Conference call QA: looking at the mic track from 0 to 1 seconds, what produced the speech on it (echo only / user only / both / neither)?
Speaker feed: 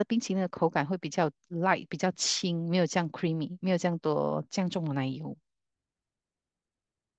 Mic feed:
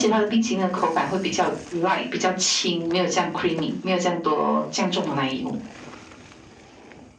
echo only